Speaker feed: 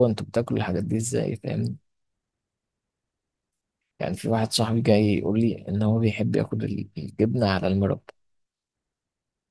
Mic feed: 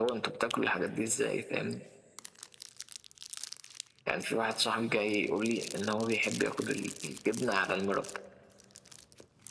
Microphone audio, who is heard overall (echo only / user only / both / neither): echo only